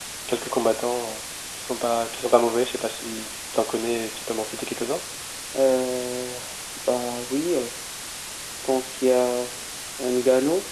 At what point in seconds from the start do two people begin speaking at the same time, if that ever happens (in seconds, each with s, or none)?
none